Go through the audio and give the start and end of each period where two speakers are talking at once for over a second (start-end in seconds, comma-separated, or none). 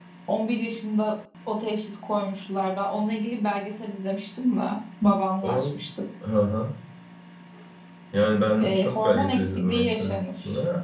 8.6-10.1